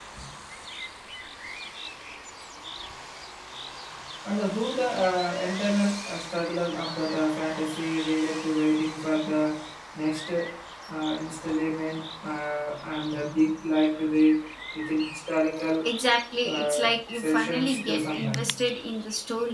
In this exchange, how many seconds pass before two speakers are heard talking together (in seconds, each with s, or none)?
16.4 s